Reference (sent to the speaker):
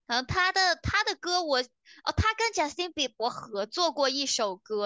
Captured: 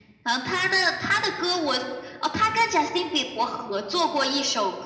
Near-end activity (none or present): none